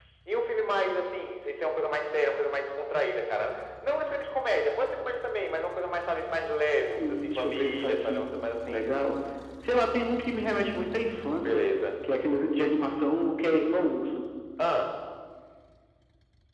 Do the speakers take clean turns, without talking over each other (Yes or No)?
No